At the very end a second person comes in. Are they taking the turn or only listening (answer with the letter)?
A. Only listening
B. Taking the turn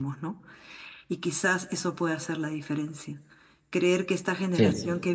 A